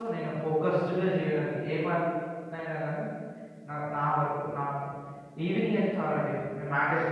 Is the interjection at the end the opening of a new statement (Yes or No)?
No